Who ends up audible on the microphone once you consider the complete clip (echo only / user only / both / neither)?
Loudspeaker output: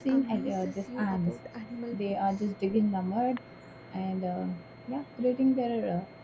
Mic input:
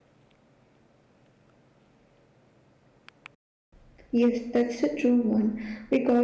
user only